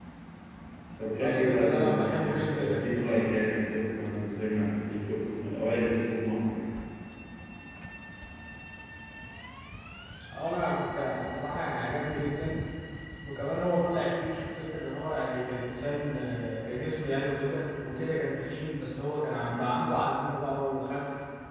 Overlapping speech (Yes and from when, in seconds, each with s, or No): Yes, from 1.2 s